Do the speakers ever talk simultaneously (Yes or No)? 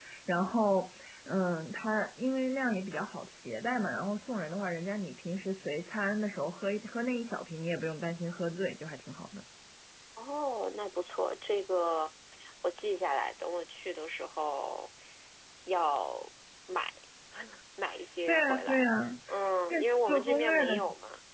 Yes